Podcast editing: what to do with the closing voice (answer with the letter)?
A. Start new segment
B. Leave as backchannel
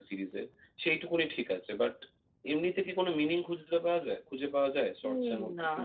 A